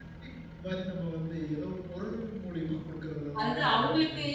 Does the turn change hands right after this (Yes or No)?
Yes